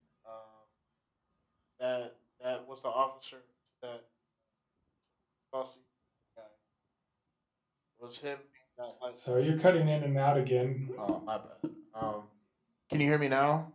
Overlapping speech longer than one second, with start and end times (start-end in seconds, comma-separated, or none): none